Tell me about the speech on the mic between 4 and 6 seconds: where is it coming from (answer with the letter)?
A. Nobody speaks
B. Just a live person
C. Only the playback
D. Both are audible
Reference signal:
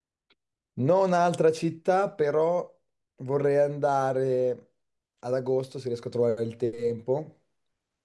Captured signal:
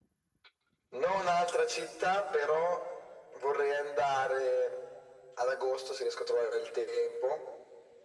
C